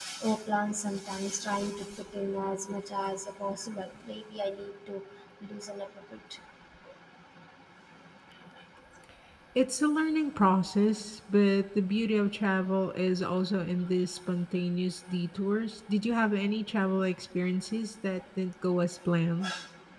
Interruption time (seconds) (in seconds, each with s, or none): none